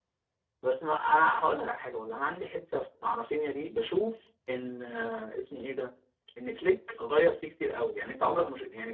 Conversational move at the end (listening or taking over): listening